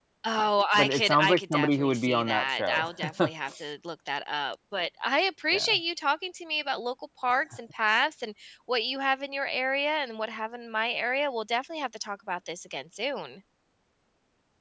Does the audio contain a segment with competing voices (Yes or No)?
Yes